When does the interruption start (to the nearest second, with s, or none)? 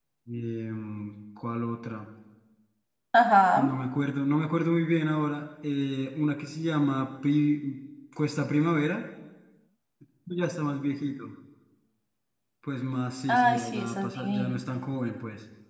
13 s